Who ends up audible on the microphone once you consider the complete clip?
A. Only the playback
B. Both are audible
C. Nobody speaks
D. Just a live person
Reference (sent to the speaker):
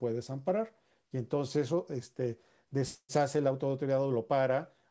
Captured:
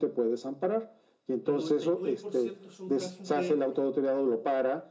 B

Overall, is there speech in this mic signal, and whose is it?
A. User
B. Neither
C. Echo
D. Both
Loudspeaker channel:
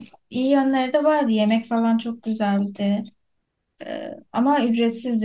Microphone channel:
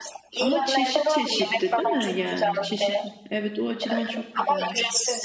D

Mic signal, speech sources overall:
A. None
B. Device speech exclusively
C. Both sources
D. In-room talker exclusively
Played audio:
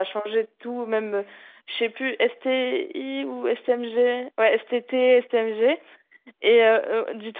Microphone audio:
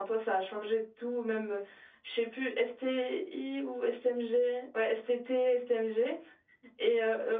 B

